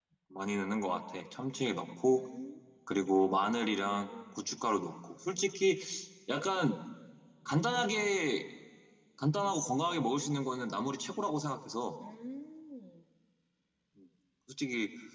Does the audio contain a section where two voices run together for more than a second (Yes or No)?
No